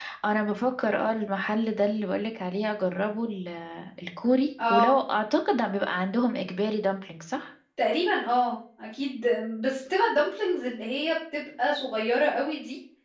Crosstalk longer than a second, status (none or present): none